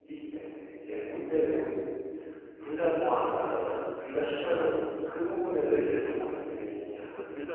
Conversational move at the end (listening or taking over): taking over